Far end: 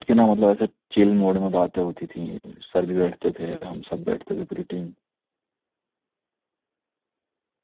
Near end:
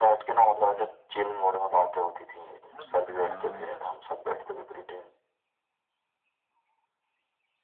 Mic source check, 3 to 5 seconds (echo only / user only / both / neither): both